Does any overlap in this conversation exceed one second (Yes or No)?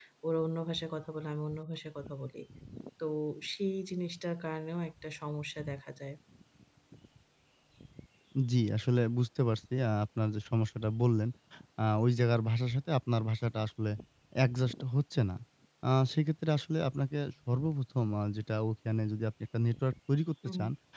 No